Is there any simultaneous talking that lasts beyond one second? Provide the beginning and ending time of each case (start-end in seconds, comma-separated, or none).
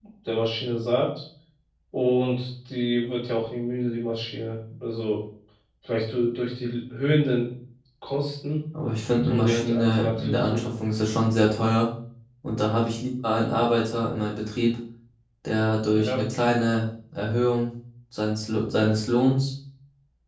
9.2-10.7